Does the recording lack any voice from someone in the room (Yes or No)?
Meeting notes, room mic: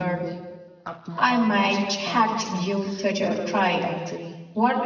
No